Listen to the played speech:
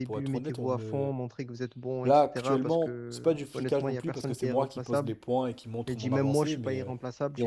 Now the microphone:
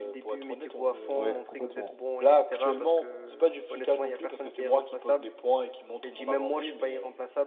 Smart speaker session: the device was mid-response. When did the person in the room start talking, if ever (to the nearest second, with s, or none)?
1 s